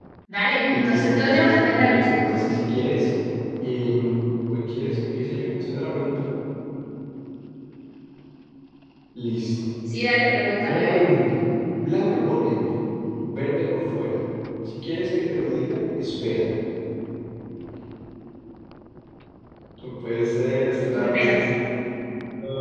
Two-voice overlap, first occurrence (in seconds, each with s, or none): 0.7 s